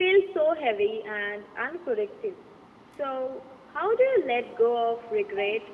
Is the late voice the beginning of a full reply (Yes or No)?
Yes